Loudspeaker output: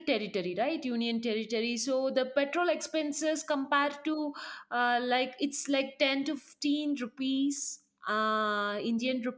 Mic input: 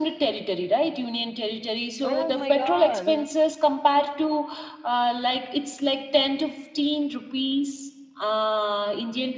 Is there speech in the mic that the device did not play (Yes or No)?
Yes